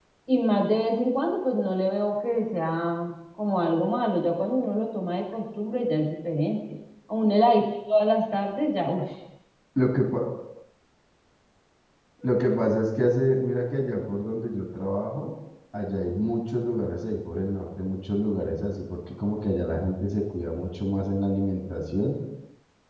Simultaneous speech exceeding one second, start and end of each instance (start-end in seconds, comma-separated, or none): none